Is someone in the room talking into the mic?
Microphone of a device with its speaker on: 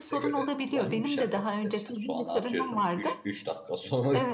Yes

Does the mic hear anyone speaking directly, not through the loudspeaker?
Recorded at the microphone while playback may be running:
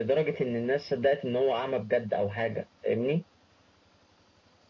No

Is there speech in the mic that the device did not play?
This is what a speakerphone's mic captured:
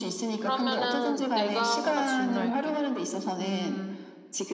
Yes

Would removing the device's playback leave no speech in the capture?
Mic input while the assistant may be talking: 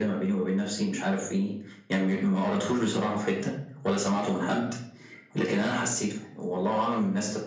Yes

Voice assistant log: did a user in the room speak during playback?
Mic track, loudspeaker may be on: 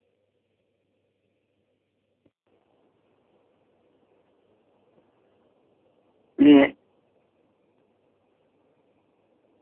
Yes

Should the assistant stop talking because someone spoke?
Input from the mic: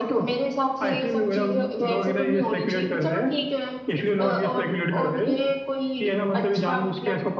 No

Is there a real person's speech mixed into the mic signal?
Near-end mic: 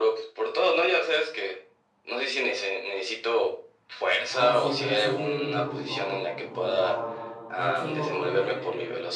Yes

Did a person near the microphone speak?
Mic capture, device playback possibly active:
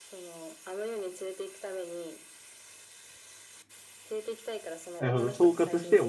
Yes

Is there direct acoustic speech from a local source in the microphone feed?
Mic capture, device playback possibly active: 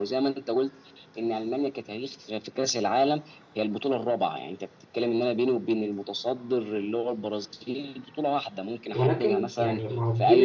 Yes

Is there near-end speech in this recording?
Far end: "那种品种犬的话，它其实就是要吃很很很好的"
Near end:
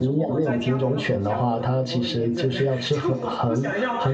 Yes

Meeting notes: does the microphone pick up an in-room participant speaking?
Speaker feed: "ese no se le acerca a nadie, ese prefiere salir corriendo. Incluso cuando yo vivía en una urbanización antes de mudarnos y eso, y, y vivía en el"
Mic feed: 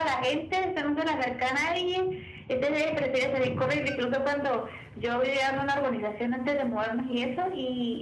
No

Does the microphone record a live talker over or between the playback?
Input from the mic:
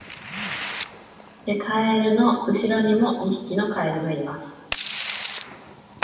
Yes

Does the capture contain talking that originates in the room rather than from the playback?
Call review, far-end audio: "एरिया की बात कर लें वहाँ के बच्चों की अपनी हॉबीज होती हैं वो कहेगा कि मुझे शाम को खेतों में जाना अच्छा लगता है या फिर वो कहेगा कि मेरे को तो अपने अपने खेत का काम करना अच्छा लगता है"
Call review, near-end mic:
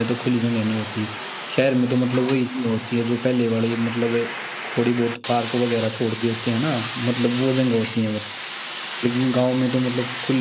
Yes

